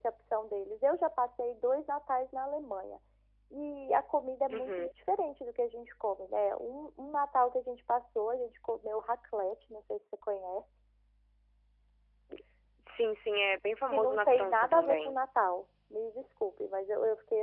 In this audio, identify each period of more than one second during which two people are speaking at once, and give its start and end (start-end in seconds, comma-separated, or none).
13.9-15.2